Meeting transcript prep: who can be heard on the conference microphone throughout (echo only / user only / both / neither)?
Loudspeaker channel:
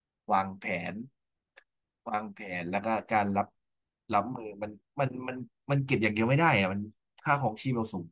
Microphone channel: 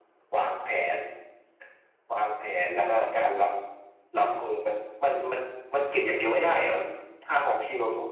echo only